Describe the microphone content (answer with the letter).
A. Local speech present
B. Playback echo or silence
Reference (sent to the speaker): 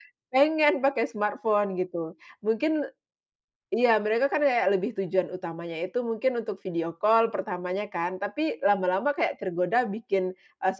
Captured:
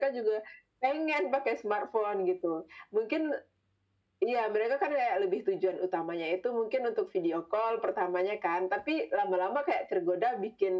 B